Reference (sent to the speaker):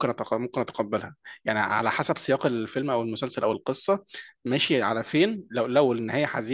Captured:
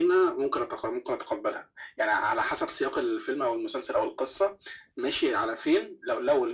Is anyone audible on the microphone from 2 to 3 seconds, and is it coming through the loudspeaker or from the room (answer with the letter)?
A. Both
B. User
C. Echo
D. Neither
C